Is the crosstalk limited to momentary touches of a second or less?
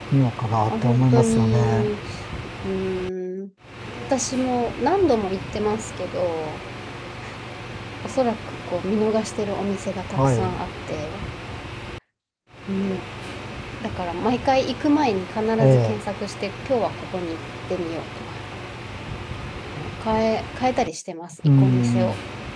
No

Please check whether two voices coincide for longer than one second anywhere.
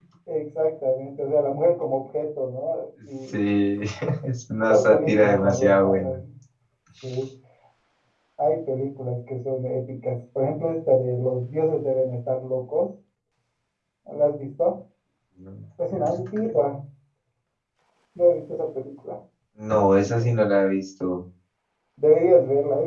Yes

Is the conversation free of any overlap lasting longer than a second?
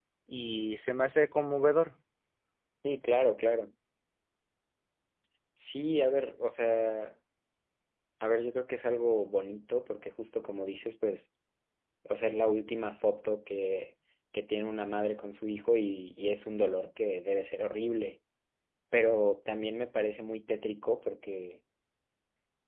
Yes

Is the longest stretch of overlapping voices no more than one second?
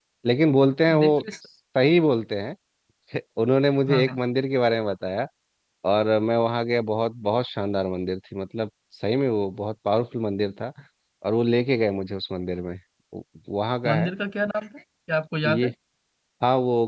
Yes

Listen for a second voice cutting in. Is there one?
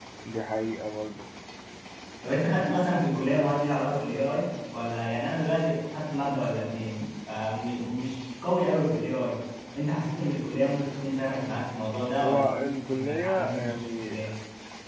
Yes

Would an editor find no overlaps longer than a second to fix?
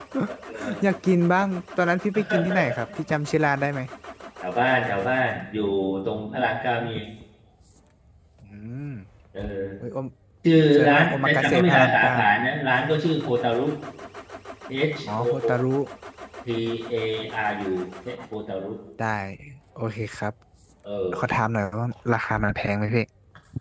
No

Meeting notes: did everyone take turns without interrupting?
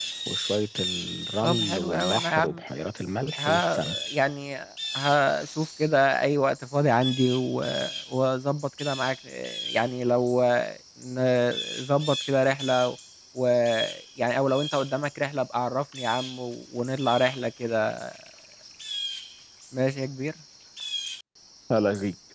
No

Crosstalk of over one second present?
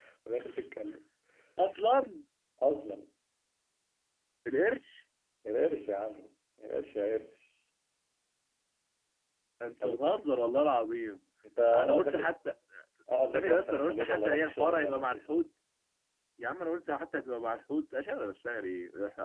Yes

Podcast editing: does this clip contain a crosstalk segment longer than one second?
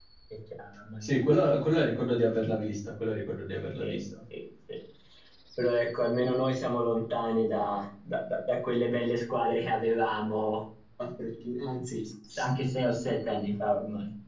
No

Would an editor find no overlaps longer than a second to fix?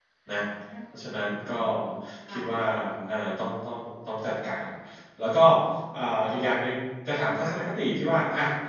Yes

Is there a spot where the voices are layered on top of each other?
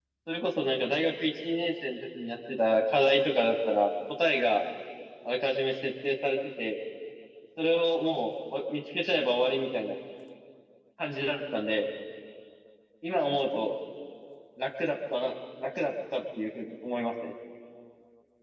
No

